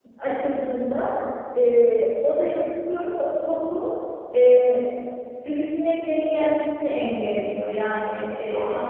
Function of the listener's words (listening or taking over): taking over